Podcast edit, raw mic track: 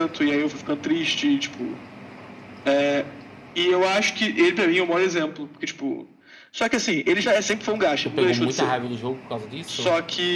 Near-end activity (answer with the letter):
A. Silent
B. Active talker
B